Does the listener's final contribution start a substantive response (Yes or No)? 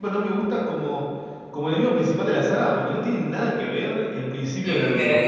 Yes